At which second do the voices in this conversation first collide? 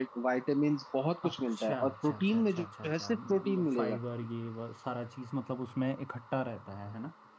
1.2 s

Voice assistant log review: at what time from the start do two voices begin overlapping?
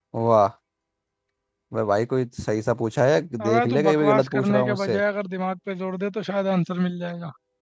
3.4 s

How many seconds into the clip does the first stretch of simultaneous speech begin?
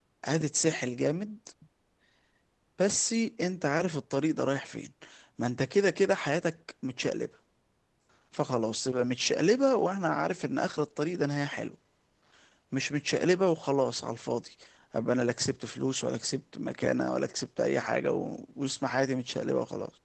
none

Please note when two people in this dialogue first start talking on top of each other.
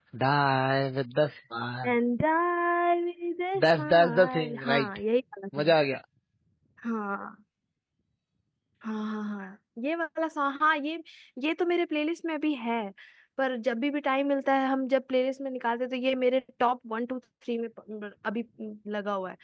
3.6 s

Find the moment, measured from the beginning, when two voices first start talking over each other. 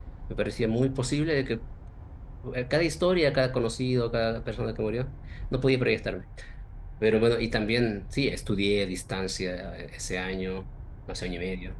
none

